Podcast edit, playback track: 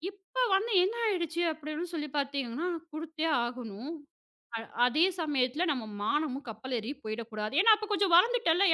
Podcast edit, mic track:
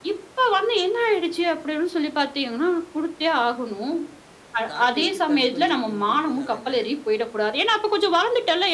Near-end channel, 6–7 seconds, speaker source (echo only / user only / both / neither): both